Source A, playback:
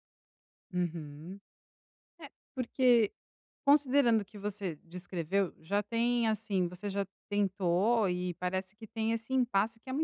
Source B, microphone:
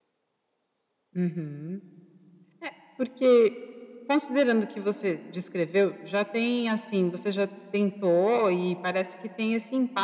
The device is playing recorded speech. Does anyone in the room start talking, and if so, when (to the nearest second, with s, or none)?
none